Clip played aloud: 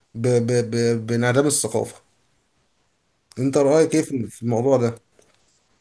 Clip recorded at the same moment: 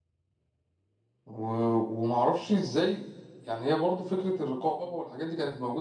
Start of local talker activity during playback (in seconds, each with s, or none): 1.2 s